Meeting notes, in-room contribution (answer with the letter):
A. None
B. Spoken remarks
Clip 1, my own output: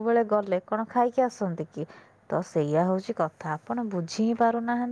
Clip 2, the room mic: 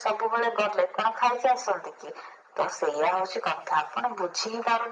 A